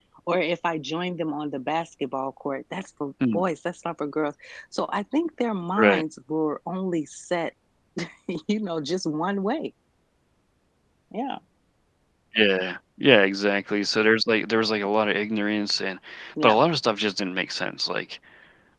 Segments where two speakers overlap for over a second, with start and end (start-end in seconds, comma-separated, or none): none